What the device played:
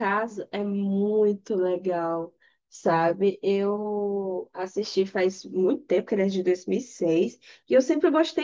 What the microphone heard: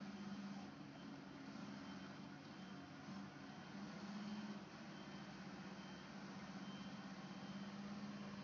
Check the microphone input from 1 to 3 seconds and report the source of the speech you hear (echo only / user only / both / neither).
neither